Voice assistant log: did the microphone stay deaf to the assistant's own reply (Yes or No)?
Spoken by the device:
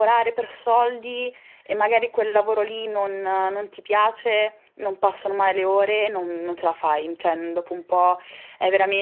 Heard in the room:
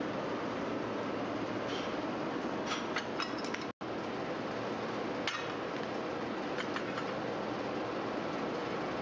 Yes